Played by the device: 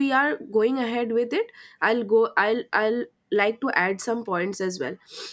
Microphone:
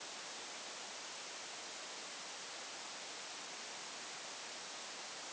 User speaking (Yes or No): No